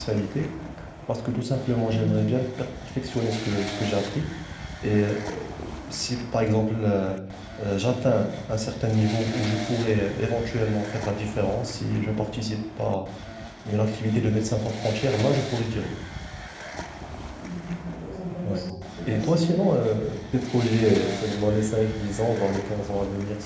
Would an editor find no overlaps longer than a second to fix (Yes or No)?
Yes